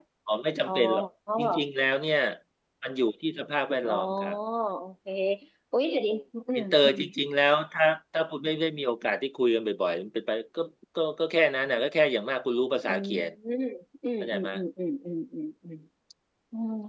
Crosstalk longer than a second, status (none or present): none